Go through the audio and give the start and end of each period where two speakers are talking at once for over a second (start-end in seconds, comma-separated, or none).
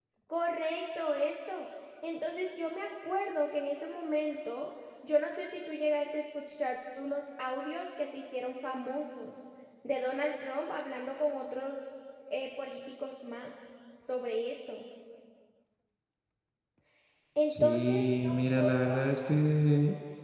17.5-18.9